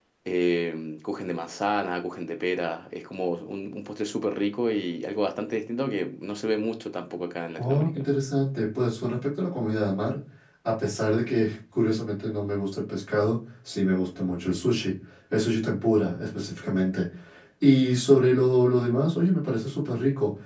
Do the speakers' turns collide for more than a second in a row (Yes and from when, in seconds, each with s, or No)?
No